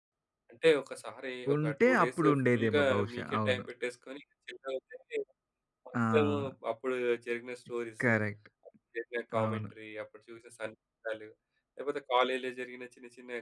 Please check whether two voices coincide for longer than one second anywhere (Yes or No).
Yes